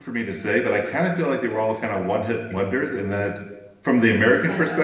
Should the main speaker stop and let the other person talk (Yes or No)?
No